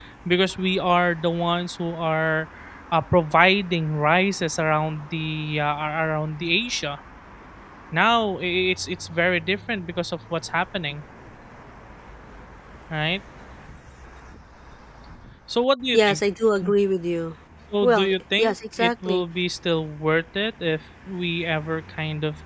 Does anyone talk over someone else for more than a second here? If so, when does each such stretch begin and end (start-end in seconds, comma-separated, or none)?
17.8-19.2